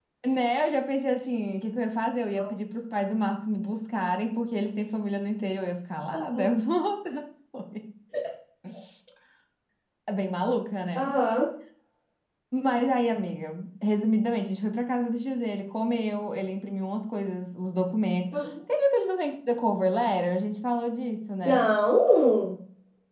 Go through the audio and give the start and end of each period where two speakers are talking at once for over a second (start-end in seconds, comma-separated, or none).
none